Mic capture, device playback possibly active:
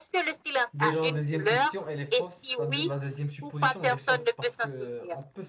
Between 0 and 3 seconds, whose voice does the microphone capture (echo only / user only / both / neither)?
both